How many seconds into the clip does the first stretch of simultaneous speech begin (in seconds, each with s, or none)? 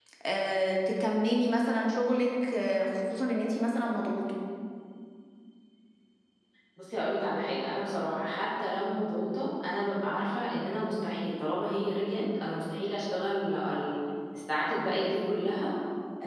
none